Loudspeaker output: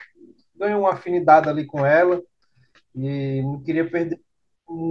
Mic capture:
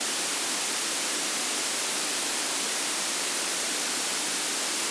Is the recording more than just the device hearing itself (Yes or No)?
No